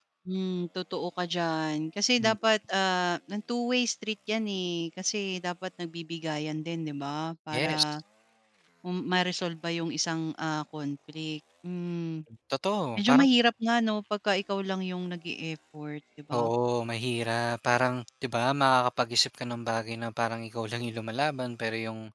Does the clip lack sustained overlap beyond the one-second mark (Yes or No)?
Yes